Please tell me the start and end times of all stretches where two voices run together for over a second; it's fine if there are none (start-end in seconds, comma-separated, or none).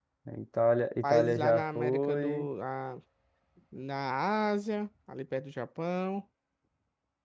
1.0-2.5